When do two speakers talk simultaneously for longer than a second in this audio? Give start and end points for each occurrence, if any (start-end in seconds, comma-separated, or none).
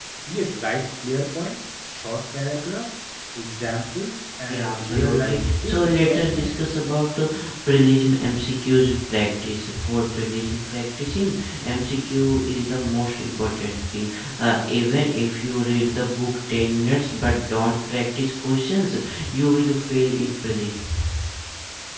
4.5-6.5